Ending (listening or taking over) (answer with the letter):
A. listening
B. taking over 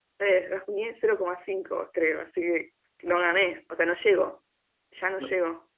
B